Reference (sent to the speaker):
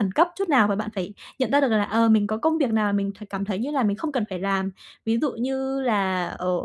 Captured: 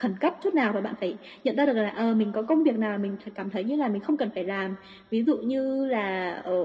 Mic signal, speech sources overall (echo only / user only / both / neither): echo only